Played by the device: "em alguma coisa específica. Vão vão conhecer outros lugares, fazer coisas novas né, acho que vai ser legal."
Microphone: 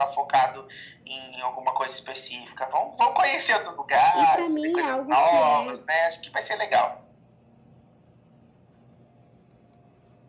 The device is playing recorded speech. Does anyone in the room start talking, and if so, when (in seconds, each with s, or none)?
4.1 s